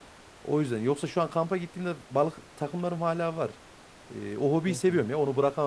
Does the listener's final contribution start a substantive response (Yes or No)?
No